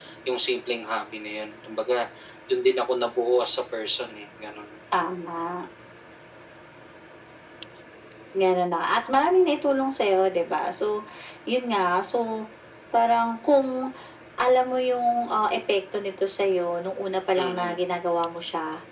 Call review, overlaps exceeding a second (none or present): none